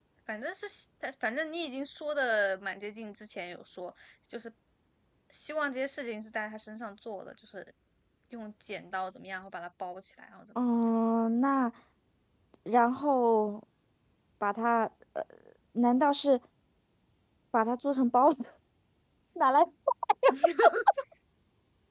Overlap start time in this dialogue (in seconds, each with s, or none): none